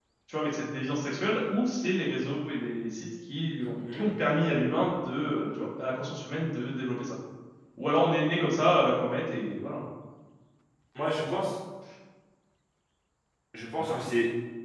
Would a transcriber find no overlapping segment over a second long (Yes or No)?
Yes